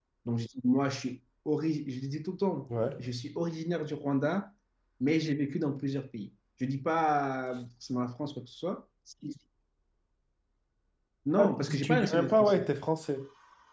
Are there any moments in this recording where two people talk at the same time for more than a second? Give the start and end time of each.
11.4-12.7

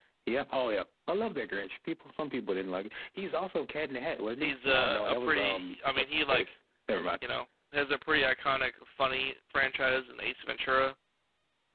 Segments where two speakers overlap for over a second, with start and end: 4.4-6.5

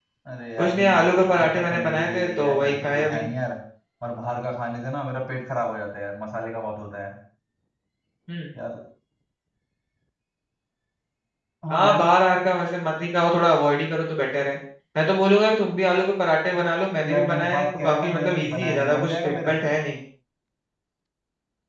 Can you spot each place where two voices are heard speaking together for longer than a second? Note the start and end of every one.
0.6-3.2, 17.0-19.7

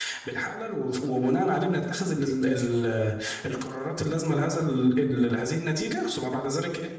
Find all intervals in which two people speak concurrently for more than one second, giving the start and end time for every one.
none

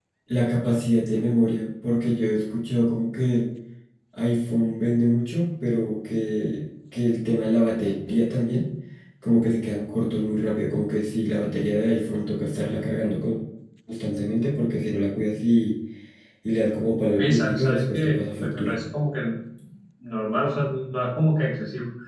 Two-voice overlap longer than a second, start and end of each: 17.2-18.7

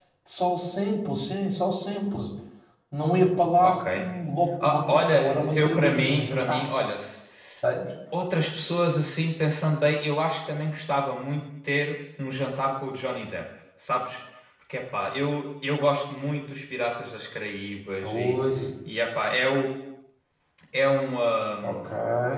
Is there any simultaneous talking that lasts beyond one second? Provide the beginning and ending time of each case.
4.6-6.7

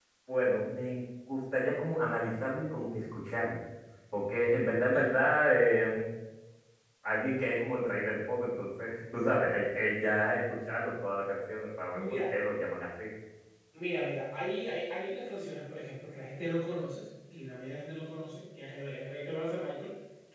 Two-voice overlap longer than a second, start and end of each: none

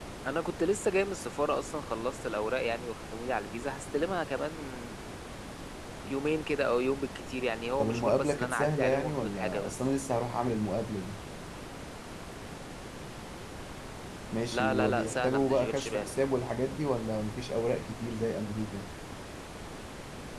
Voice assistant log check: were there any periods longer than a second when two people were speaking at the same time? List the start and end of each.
7.8-9.8, 14.5-16.1

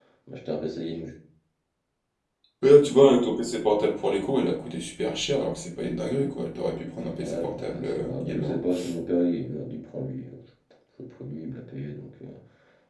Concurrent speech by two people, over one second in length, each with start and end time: 7.1-8.6

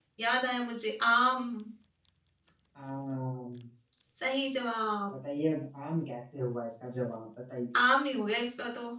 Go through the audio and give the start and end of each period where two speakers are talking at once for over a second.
none

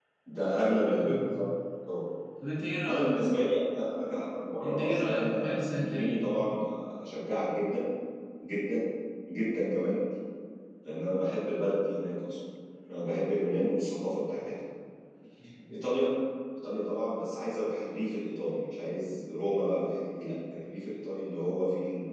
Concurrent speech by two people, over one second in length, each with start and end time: 4.6-6.2

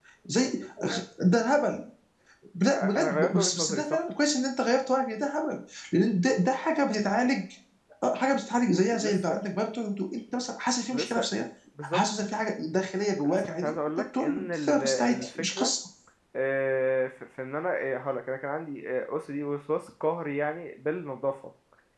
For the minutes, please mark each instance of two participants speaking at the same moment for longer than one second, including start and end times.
2.7-4.0, 13.2-15.7

